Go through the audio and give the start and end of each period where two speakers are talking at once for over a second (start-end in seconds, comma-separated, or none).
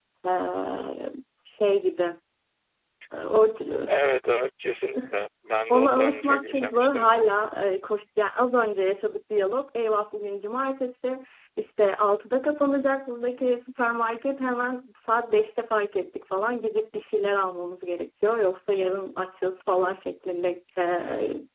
5.7-7.1